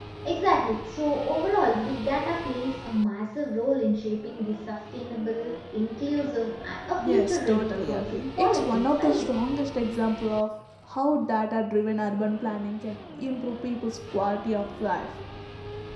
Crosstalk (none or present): present